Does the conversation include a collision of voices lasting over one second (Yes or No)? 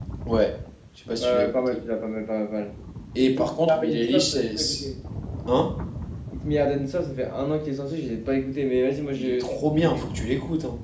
Yes